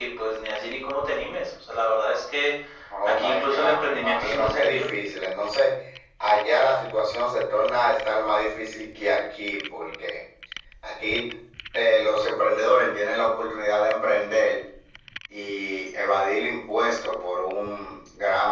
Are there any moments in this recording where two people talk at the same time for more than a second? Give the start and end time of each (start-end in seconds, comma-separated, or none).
3.0-4.9